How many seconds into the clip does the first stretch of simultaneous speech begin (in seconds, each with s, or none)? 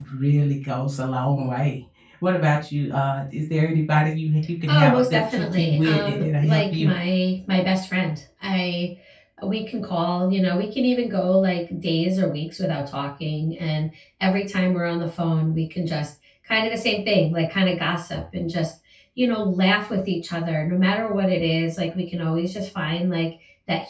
4.7 s